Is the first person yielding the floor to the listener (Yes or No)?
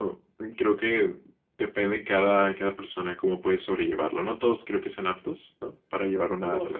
Yes